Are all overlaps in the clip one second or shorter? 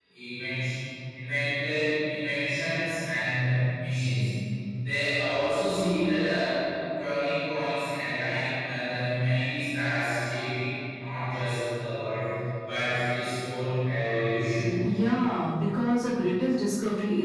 Yes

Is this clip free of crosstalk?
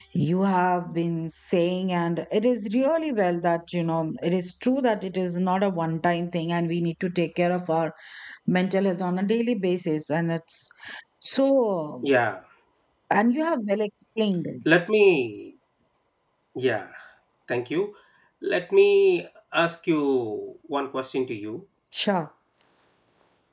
Yes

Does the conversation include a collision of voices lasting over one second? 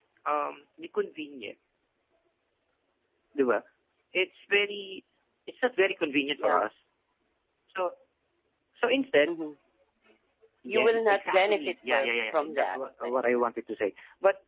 Yes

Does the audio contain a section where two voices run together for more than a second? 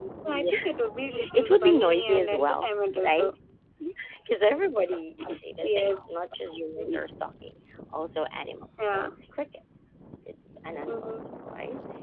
Yes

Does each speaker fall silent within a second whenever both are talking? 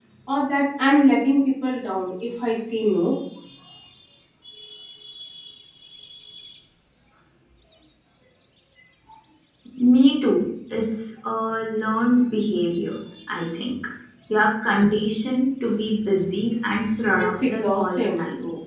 No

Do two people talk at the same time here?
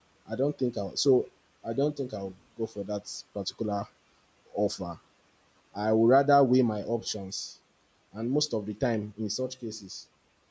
No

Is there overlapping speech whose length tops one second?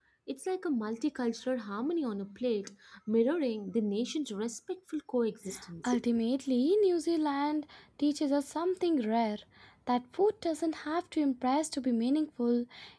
No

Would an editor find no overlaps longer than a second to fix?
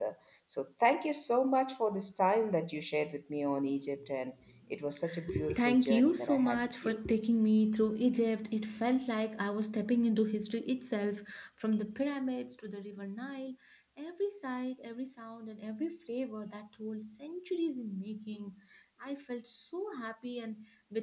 No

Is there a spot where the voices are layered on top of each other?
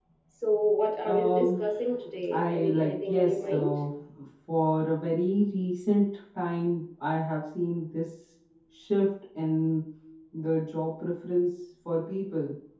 Yes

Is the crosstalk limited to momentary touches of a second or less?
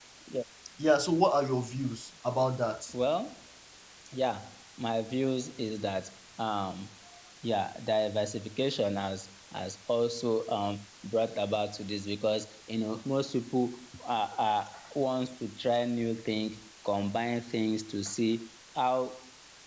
Yes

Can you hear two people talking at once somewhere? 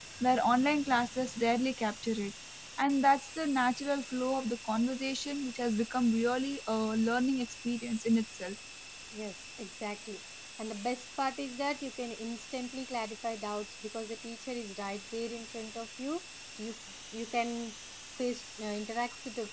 No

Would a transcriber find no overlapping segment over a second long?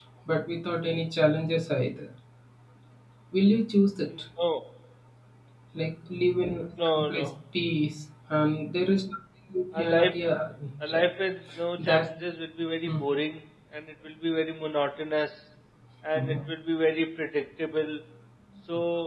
Yes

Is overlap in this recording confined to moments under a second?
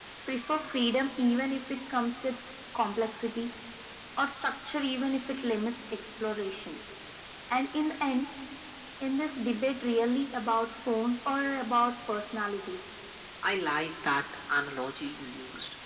Yes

